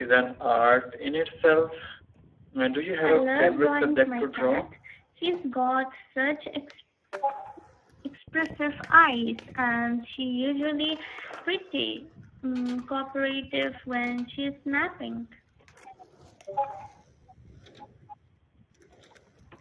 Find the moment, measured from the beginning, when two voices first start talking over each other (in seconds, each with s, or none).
3.0 s